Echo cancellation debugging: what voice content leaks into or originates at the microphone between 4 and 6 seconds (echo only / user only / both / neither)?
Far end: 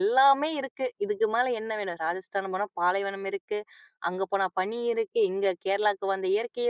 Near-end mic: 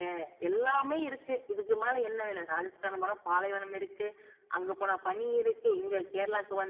echo only